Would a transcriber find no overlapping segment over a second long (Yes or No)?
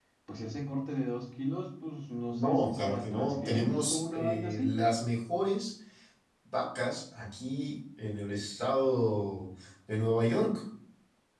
No